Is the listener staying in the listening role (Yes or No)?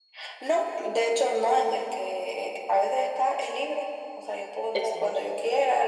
Yes